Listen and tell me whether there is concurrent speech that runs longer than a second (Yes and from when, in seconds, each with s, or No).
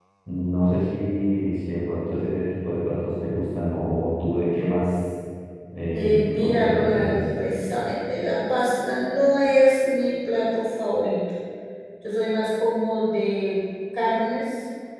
Yes, from 5.9 s